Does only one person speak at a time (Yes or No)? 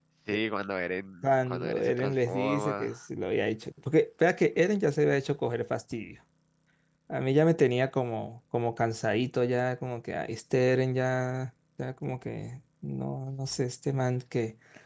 No